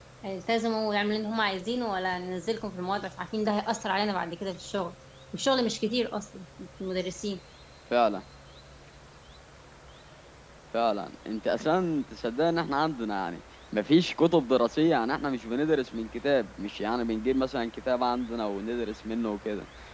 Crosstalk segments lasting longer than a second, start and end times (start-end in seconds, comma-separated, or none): none